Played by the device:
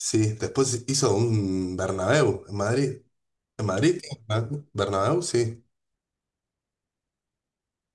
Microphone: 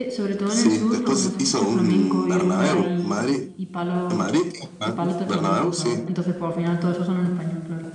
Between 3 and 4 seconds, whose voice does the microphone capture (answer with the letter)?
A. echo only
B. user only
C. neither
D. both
D